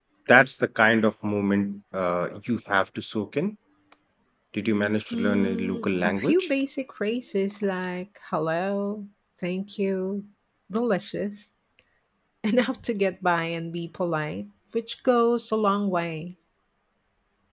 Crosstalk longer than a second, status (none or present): present